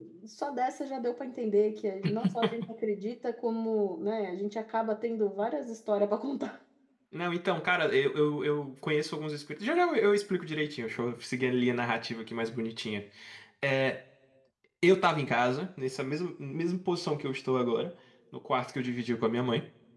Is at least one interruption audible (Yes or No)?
No